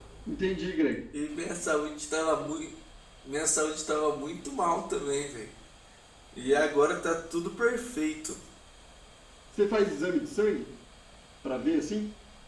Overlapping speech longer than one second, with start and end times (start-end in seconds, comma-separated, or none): none